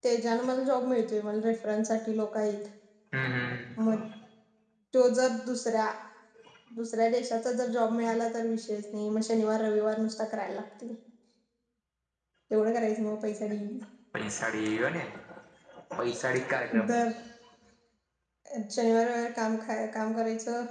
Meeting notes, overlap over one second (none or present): none